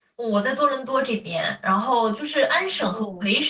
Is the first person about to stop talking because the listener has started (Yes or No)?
No